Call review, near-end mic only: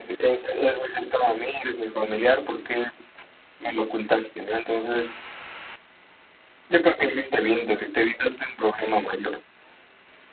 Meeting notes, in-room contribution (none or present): none